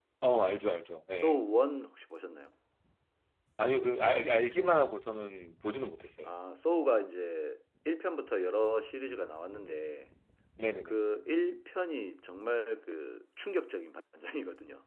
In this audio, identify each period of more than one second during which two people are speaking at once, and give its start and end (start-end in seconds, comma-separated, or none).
none